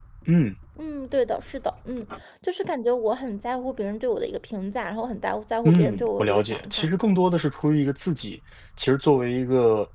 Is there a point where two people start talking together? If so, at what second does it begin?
5.7 s

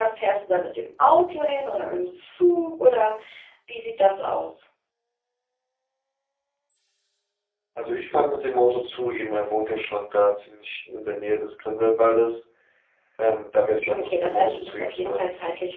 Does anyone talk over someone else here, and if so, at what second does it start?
13.9 s

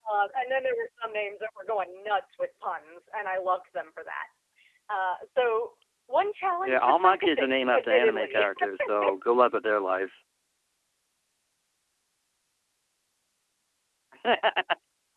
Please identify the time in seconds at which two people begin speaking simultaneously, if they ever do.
6.6 s

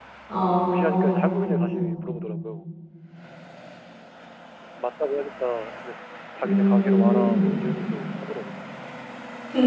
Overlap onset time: 0.7 s

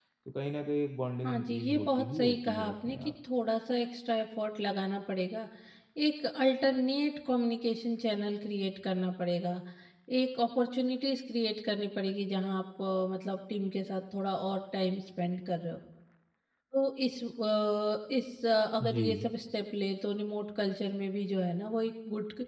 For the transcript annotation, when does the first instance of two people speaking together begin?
1.2 s

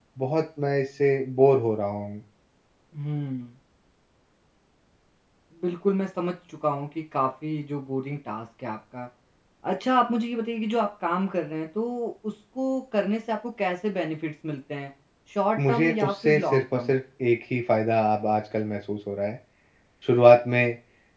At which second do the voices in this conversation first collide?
15.7 s

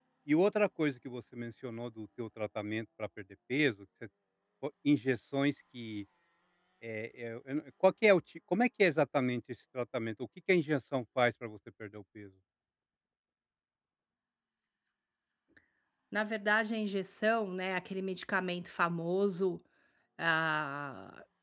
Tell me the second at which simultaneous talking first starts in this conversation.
none

